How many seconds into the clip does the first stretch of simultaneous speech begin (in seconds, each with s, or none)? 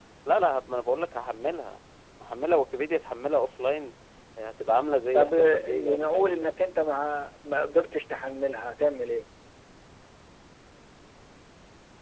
5.1 s